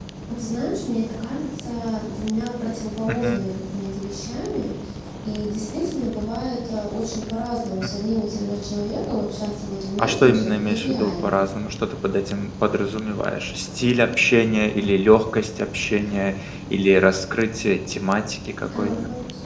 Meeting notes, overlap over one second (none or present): present